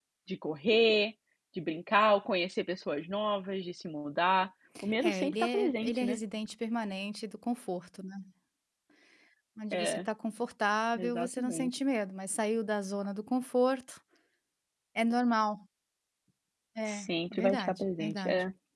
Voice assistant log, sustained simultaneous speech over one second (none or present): present